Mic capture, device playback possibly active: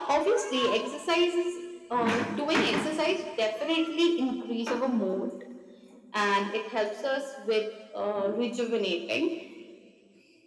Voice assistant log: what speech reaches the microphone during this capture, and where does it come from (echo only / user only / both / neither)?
echo only